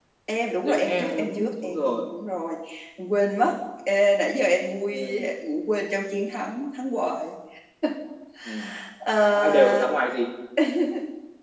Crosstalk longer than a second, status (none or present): present